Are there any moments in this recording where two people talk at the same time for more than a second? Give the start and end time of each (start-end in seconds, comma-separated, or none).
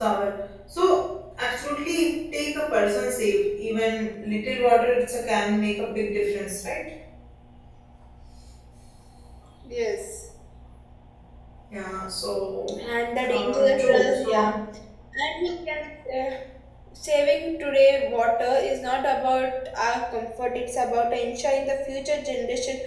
13.3-14.6